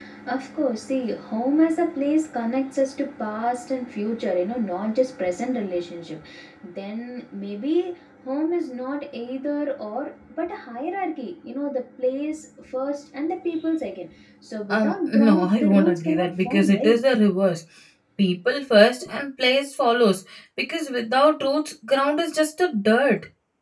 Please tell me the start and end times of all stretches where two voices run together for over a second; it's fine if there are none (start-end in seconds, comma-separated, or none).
14.7-17.0